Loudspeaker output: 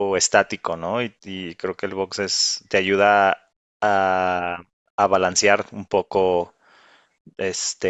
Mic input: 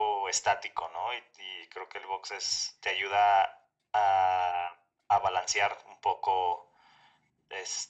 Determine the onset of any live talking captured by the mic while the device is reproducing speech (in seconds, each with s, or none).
none